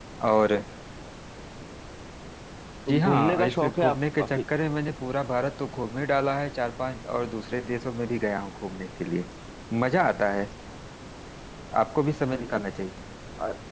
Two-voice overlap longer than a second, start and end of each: 2.9-4.4

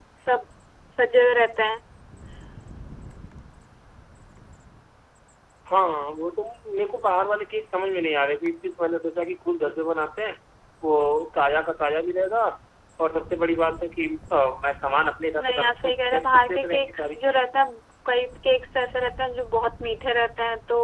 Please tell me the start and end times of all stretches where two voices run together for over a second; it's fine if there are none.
15.4-17.4

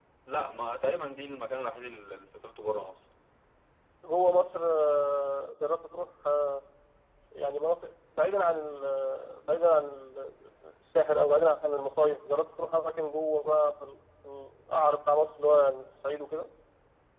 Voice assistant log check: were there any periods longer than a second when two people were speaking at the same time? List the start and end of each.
none

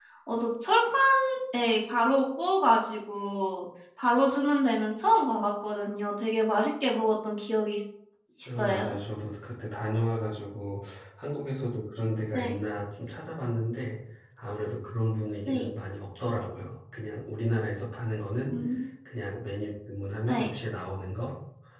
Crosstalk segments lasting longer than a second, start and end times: none

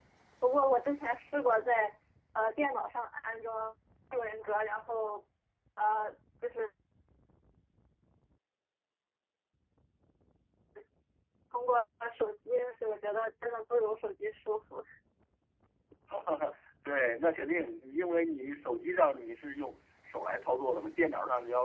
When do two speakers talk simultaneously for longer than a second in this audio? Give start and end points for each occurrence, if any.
none

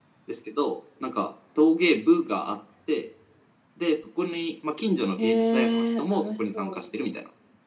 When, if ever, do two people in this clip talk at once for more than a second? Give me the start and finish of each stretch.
5.2-6.8

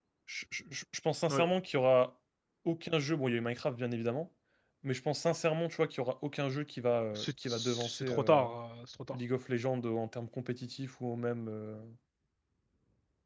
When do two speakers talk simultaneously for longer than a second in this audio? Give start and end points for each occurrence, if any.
7.2-8.5

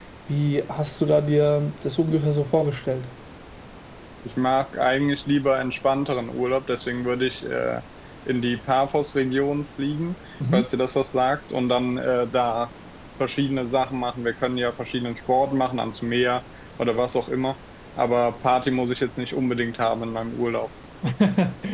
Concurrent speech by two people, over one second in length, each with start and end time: none

